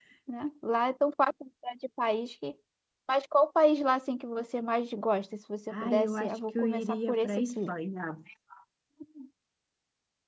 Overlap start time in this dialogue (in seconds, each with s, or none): 5.7 s